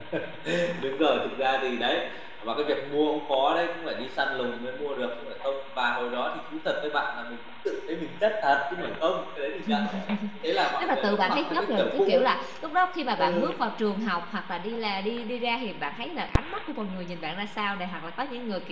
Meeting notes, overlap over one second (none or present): present